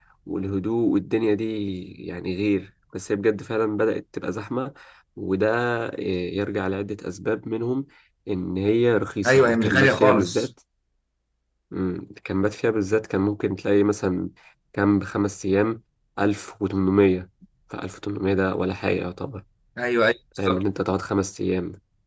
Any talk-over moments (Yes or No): Yes